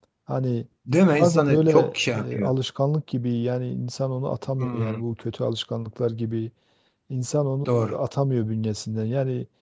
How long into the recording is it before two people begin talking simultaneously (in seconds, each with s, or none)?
1.1 s